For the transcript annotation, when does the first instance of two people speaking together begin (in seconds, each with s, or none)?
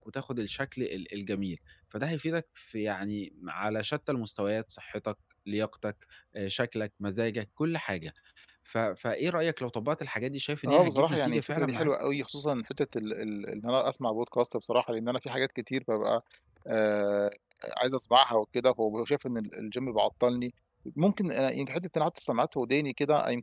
10.6 s